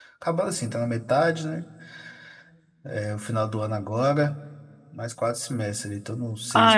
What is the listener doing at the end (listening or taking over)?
taking over